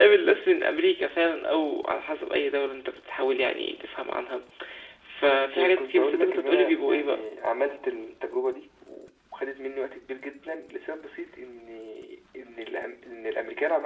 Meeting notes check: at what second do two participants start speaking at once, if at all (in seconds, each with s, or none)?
5.2 s